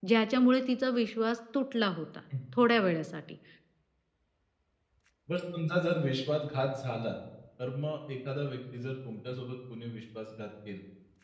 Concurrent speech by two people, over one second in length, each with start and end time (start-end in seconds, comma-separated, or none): none